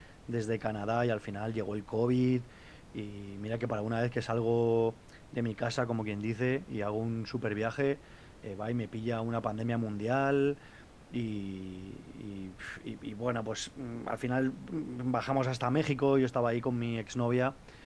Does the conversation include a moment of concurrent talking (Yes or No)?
No